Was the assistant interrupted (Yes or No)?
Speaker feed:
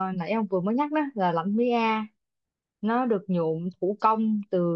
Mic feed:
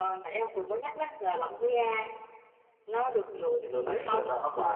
Yes